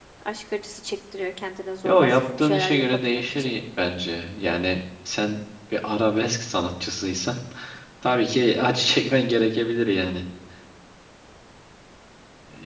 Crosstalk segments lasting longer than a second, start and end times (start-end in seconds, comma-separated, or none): 1.9-3.5